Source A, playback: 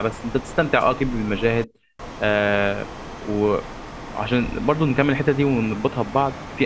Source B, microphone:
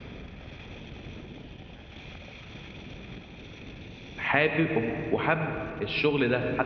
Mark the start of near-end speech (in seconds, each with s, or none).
4.1 s